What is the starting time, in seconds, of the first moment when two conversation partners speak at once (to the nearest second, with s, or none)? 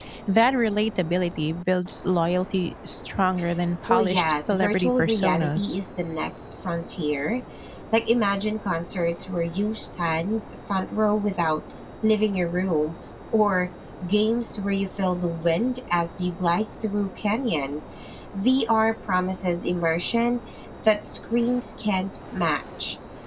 4 s